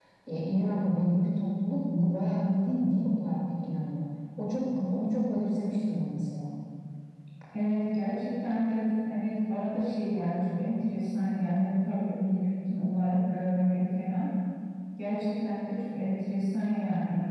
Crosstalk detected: No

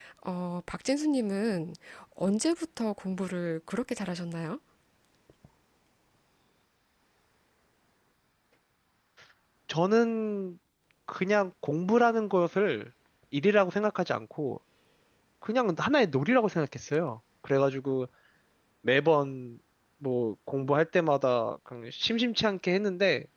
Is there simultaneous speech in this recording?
No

